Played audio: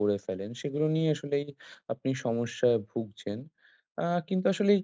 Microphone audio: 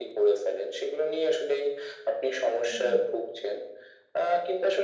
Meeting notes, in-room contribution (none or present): present